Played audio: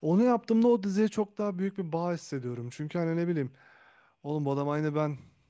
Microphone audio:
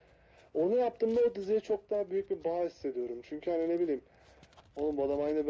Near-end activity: none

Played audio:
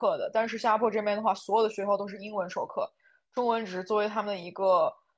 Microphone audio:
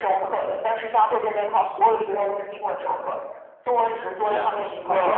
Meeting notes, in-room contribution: present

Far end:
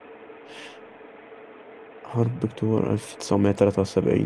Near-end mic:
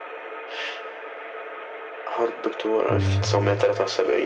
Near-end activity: present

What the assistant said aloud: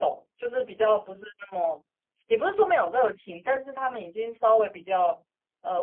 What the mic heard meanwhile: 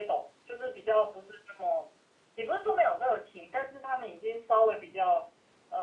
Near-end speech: none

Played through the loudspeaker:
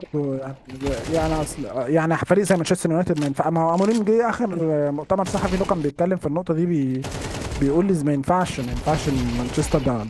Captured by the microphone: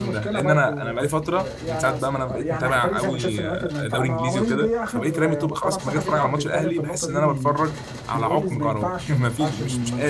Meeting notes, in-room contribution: present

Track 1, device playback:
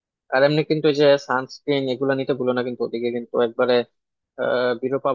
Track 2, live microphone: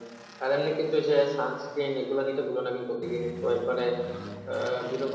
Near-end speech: none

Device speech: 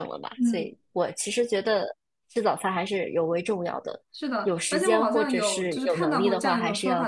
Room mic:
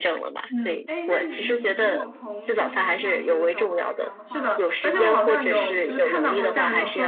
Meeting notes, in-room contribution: present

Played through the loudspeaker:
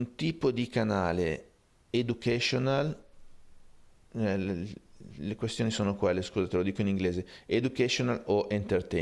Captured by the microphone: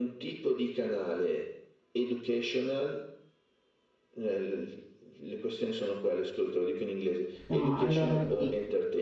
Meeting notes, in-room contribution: present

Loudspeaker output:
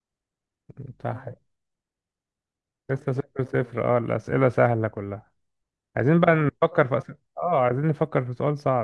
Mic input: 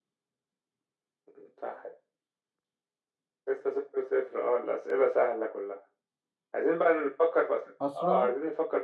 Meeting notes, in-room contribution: present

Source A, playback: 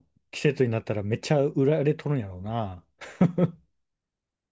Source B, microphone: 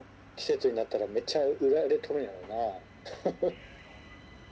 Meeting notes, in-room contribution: none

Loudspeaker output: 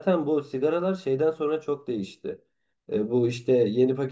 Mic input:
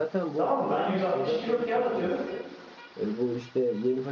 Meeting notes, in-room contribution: present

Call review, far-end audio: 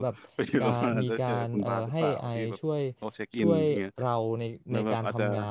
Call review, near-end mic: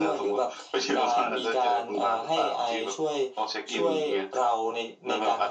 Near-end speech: none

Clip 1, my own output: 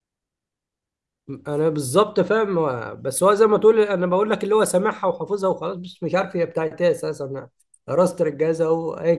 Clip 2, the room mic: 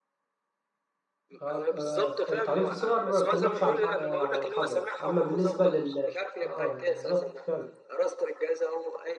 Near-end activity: present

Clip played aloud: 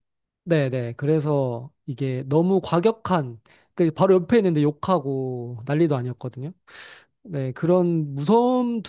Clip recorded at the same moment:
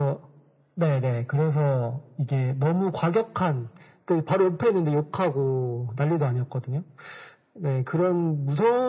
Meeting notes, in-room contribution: none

